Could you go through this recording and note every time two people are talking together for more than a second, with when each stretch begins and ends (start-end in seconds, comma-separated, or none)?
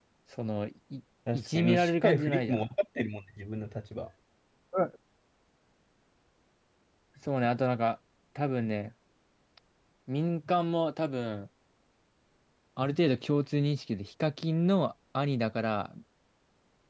1.3-2.7